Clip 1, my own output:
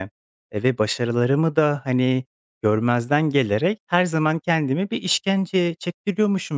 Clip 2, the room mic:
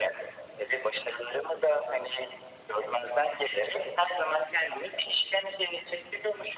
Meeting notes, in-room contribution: none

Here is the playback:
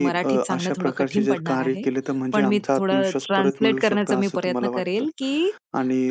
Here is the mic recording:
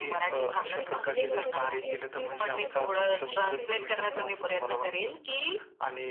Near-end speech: present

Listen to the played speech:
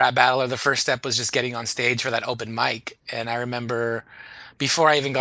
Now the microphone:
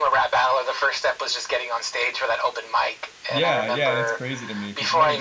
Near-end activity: present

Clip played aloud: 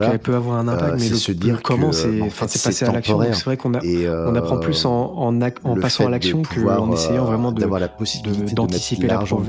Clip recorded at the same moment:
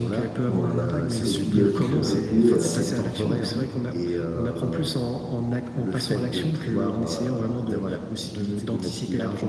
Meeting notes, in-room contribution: present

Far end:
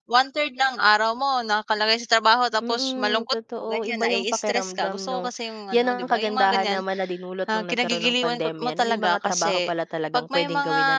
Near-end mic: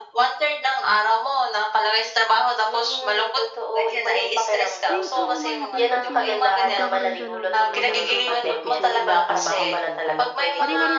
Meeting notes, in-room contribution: present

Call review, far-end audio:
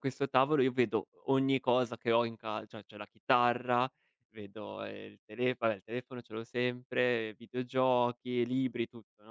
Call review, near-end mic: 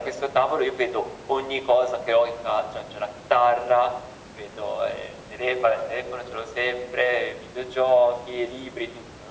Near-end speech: none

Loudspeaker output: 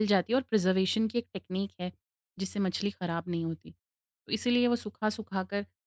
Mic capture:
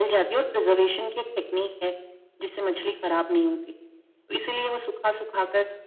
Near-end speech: none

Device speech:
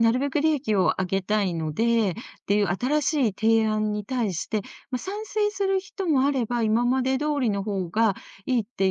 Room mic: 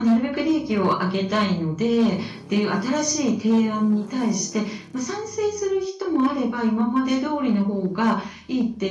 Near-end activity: none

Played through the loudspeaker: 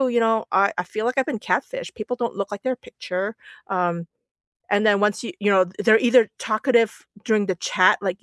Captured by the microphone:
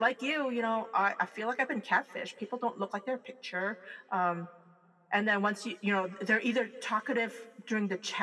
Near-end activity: none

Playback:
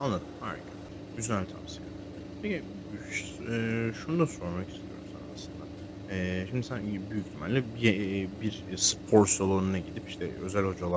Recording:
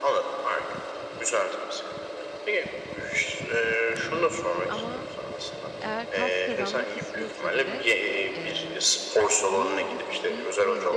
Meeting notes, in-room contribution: present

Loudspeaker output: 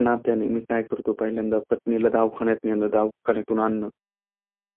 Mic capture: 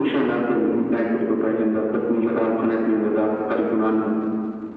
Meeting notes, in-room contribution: none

